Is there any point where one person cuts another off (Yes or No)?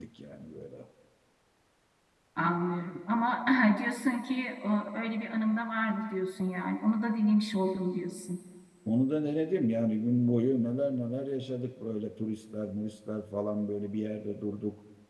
No